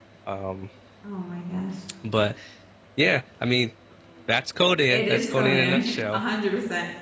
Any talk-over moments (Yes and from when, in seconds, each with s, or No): Yes, from 4.9 s